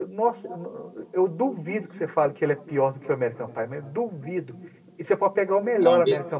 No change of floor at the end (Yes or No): Yes